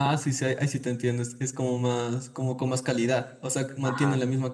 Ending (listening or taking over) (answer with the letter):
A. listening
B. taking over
A